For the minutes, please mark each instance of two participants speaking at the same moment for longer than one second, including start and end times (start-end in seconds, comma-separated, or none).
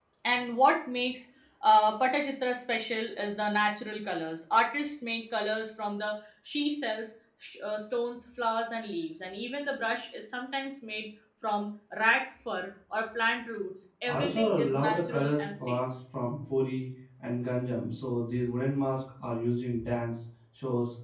14.1-15.8